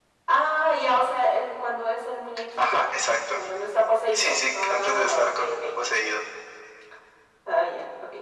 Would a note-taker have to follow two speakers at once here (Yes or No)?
Yes